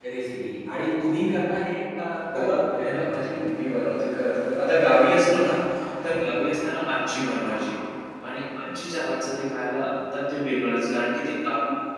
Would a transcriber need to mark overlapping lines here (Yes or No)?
Yes